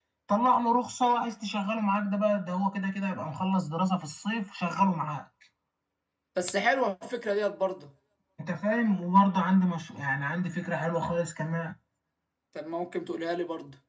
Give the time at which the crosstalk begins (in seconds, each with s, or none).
none